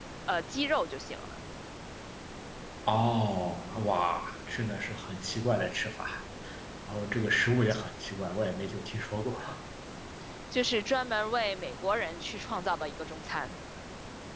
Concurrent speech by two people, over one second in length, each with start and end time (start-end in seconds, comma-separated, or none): none